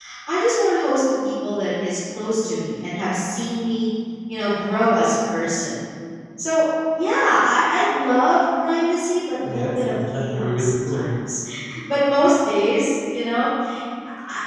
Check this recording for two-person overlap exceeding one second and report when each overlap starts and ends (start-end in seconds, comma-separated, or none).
9.4-11.1